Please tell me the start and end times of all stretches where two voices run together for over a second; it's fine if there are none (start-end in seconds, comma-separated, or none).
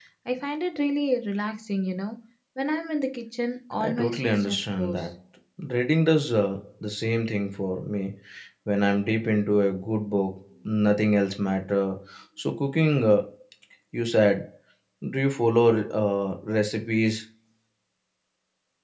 3.9-5.1